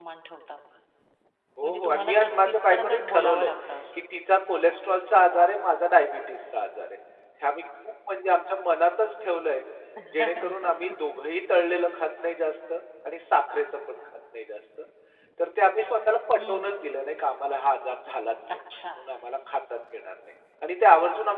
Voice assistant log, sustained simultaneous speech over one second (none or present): present